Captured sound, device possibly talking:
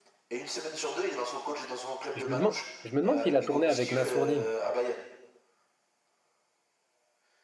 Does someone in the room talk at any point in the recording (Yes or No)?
Yes